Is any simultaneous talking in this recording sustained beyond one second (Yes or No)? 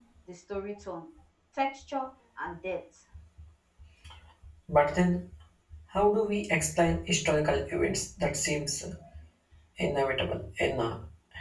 No